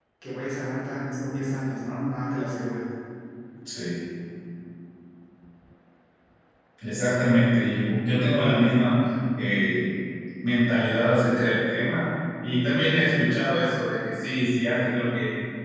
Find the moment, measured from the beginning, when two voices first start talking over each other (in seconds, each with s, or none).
none